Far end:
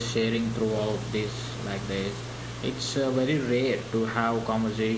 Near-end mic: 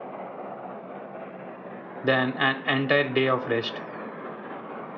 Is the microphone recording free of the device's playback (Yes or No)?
Yes